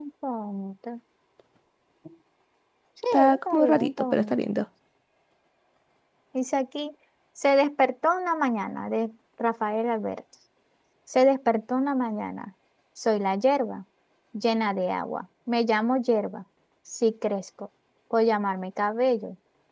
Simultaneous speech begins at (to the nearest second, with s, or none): 3 s